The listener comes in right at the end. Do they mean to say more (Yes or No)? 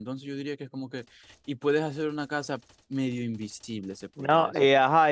Yes